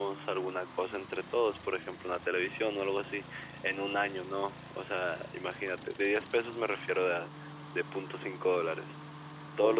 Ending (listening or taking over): listening